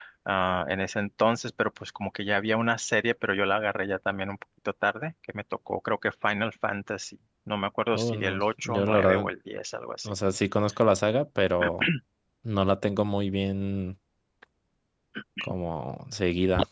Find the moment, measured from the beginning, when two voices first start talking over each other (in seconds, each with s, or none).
7.9 s